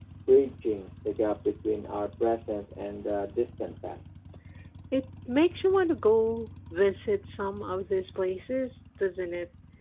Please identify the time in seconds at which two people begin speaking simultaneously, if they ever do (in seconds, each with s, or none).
none